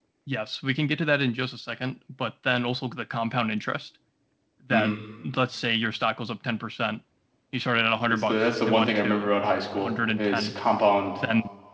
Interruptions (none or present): present